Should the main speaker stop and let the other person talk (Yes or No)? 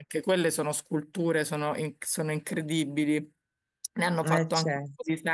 No